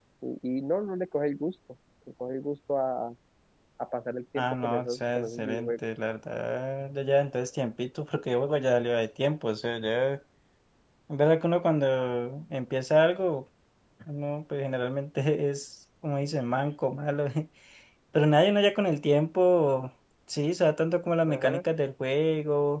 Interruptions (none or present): present